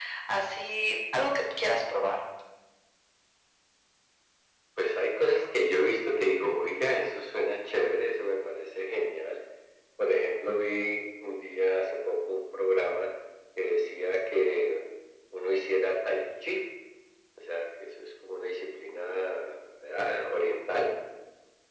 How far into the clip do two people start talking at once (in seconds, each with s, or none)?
none